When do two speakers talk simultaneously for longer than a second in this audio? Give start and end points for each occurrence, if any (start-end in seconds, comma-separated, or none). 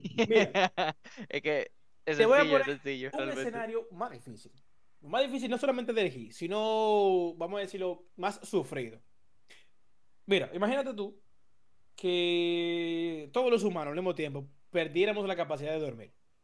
none